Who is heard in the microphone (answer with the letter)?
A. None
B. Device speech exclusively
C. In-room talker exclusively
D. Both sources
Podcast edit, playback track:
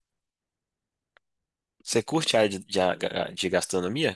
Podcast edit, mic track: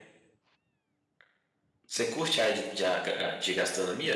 B